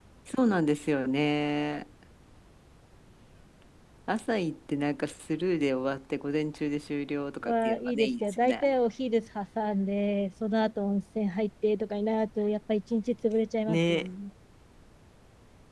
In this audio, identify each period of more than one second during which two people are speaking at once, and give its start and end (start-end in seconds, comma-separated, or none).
7.4-8.6